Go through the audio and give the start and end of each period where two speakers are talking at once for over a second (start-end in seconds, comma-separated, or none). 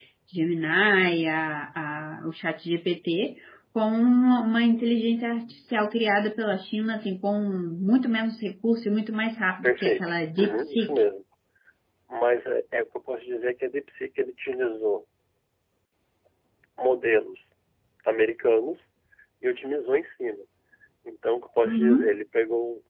9.6-11.0